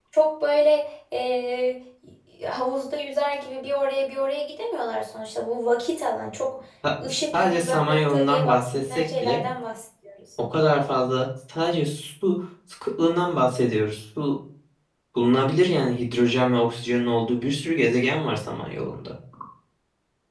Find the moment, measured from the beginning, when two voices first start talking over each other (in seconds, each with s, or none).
7.0 s